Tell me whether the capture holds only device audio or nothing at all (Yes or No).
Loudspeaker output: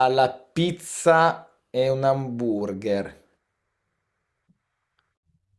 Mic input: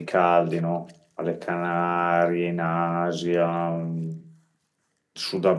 No